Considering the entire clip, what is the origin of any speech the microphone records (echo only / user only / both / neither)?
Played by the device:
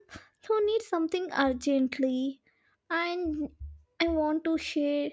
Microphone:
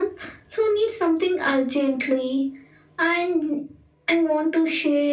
echo only